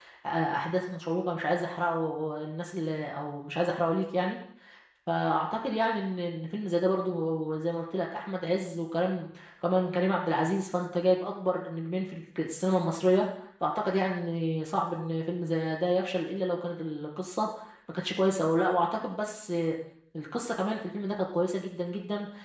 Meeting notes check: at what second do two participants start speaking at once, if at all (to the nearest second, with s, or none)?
none